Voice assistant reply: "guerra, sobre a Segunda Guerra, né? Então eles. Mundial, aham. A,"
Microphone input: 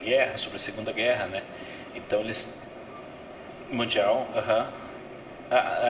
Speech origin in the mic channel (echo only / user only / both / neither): echo only